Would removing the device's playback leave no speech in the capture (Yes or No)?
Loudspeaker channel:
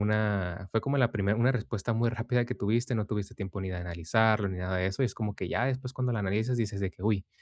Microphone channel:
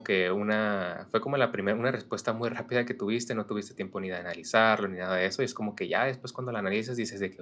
Yes